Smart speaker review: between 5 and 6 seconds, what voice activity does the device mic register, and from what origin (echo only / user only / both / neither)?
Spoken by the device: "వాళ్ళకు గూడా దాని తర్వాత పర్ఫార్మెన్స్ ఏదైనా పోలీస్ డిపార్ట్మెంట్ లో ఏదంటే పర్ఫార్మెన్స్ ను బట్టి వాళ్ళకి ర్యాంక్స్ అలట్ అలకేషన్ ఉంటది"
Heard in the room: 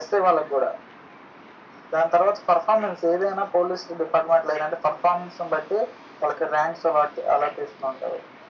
echo only